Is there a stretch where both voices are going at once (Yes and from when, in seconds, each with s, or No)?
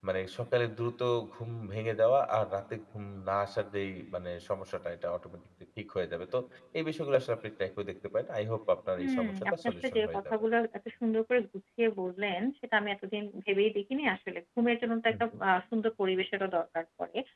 Yes, from 9.0 s